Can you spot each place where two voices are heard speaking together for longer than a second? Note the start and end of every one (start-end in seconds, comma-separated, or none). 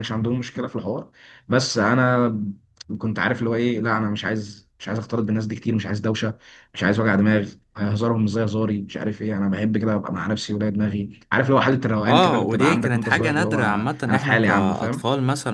12.0-15.0